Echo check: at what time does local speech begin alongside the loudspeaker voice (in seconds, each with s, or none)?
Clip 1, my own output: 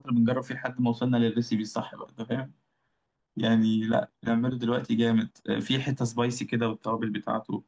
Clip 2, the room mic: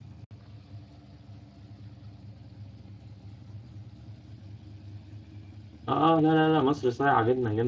5.9 s